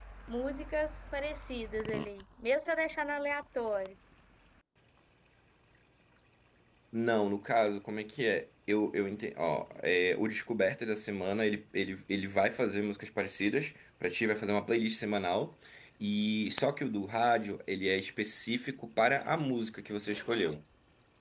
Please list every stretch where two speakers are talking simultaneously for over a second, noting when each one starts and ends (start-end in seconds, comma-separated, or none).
none